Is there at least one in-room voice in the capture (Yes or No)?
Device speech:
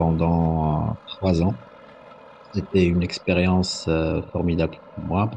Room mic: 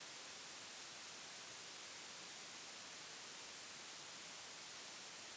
No